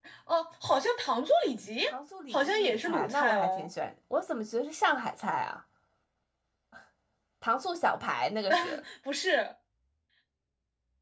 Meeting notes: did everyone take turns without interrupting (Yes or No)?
No